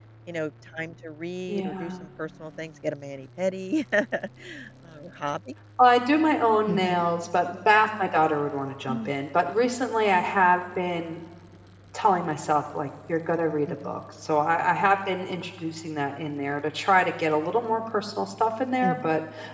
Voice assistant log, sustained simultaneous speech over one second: none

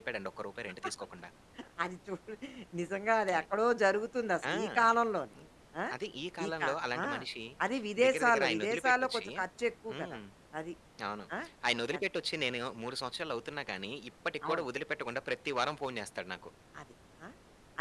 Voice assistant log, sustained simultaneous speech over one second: present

